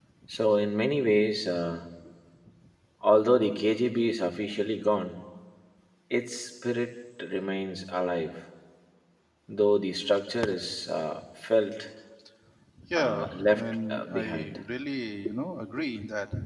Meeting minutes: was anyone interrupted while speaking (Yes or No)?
Yes